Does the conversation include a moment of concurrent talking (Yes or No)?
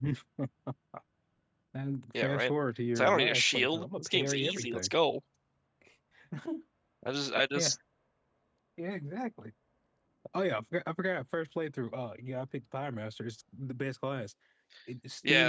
Yes